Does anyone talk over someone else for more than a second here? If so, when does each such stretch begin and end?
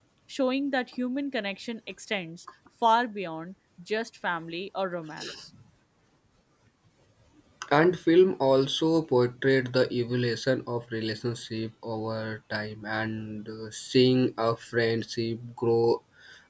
none

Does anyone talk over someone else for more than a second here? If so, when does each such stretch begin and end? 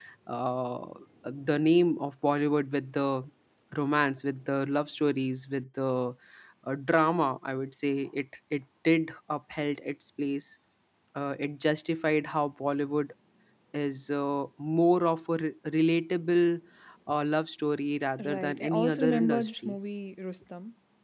18.2-19.8

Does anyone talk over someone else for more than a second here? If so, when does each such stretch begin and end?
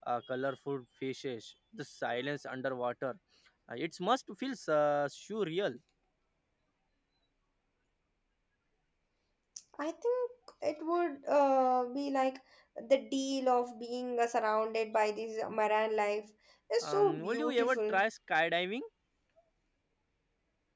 16.8-18.0

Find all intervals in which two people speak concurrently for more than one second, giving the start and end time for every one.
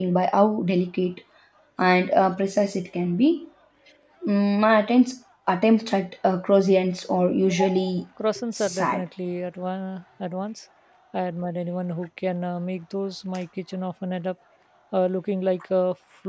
none

